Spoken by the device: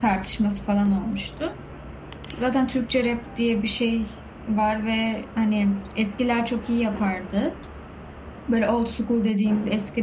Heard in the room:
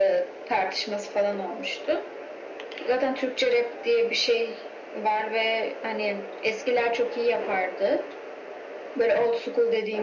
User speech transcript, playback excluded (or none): none